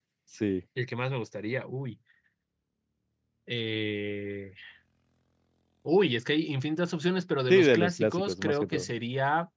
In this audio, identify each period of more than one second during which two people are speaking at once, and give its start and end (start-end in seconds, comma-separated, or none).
7.5-8.9